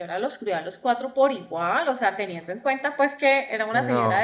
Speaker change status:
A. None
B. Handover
A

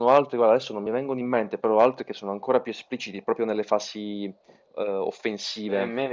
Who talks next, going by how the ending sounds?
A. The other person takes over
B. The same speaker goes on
A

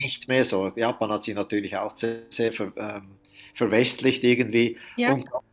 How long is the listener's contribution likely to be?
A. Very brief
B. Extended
A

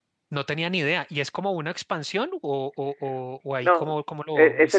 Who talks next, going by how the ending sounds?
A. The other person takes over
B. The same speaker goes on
A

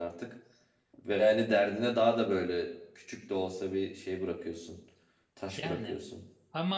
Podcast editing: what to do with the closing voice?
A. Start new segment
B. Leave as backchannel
A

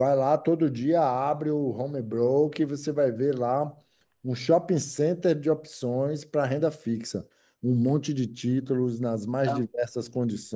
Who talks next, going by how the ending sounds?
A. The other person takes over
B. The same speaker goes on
B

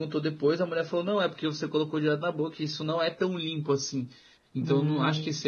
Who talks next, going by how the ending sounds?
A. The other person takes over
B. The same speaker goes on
B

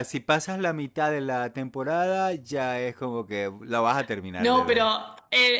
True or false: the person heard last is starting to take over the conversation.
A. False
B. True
B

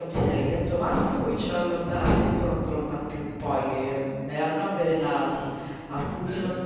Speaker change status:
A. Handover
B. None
B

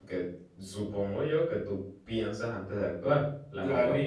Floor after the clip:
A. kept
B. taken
B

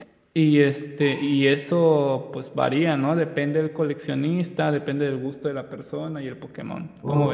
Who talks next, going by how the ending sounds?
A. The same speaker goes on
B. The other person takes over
B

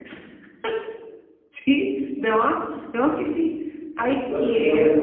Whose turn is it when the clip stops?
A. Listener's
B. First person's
A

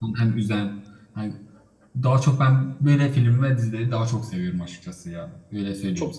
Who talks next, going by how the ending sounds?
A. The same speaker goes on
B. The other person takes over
B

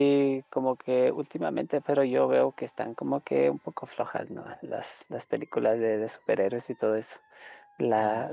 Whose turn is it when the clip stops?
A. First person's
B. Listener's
A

